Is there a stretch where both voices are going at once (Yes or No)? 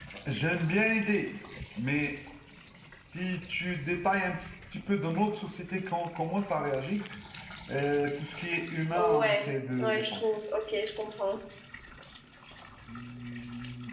Yes